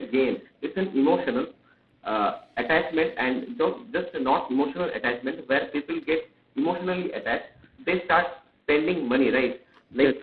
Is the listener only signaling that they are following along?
Yes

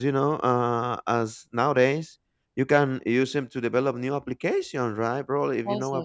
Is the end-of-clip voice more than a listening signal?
No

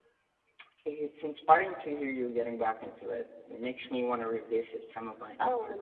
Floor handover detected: Yes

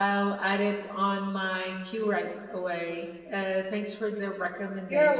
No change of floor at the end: No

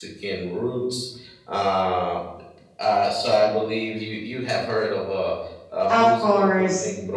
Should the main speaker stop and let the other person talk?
Yes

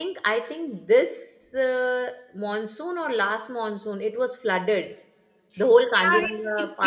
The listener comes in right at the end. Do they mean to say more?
Yes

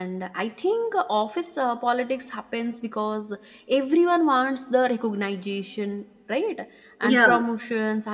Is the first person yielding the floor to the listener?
No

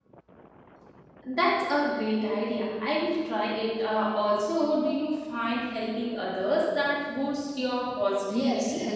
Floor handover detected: Yes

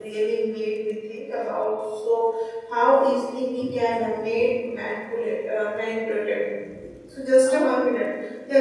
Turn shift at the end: No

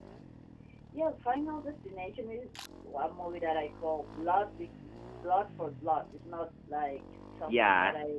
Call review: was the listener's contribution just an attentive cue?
Yes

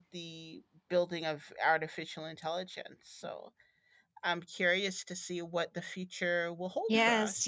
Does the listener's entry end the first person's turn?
Yes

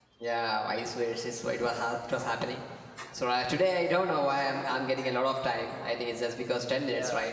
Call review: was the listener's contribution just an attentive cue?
No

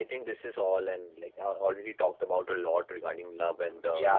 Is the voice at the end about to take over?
Yes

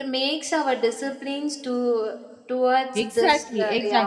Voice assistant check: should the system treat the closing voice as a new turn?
Yes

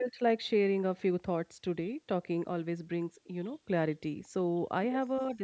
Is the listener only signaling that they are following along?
Yes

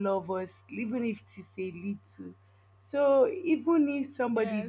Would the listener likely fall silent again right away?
No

